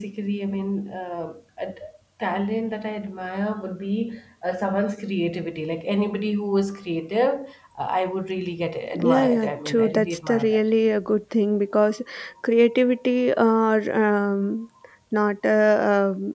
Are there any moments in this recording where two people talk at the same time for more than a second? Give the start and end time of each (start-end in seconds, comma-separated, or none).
8.9-10.6